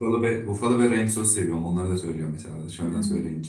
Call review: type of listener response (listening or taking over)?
taking over